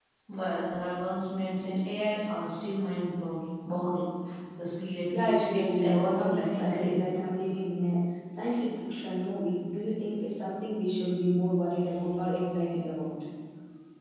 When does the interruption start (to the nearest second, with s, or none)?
5 s